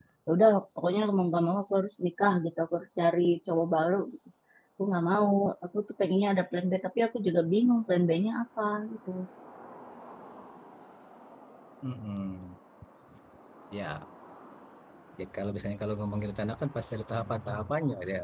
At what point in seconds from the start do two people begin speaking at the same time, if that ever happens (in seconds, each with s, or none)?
none